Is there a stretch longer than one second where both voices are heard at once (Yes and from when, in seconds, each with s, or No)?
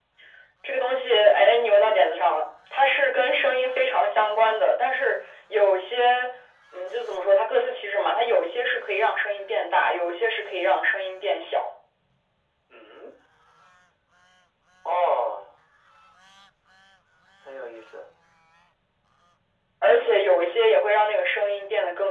No